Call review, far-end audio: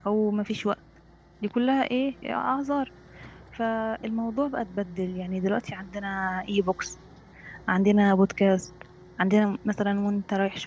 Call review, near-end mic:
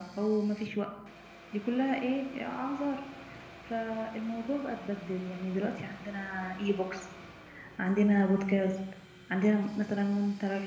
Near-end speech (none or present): none